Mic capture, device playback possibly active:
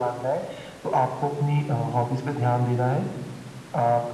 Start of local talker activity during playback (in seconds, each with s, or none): none